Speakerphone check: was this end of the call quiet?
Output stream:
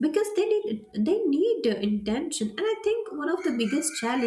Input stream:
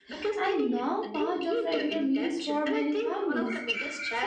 No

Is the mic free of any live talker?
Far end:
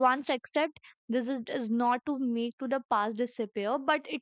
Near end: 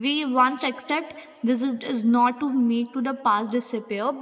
Yes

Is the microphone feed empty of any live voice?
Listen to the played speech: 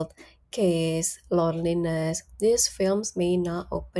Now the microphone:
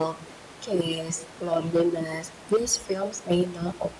Yes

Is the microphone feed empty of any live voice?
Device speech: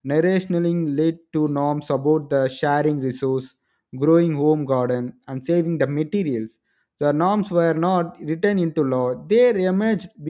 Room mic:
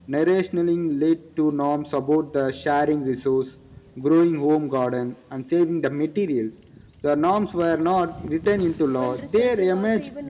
No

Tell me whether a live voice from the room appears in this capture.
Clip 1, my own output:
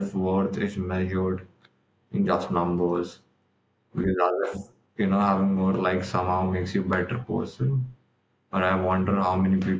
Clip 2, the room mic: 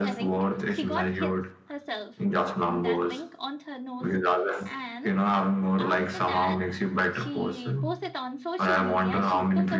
Yes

